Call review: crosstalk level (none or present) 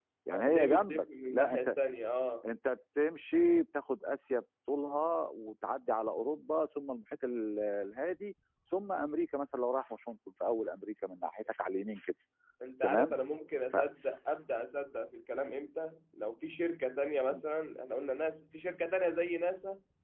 present